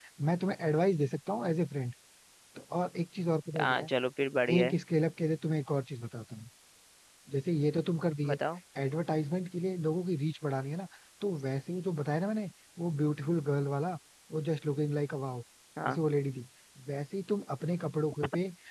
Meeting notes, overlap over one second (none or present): none